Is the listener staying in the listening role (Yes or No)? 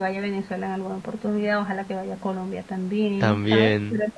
Yes